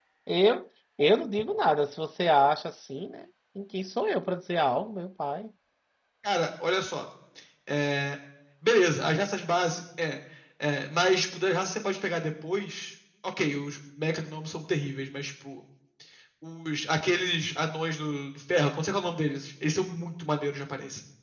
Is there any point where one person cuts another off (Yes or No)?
No